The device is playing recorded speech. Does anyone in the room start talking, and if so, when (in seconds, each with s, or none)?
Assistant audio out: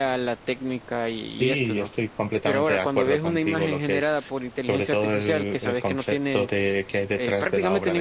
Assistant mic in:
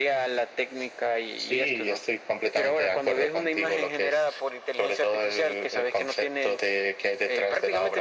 none